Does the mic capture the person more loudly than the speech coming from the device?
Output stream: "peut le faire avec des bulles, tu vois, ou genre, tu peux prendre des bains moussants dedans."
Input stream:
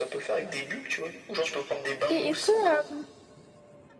Yes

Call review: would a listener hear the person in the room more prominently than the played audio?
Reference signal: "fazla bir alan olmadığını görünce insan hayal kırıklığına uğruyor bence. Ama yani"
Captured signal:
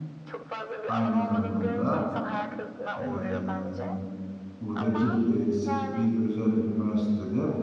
Yes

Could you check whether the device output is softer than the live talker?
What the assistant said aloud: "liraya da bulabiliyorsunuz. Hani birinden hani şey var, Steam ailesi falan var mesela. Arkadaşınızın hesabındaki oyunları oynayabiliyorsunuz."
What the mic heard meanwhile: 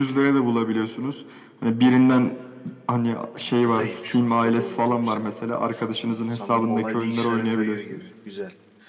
No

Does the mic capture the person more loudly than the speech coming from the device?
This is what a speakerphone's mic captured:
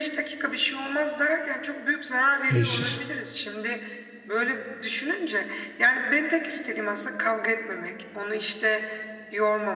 Yes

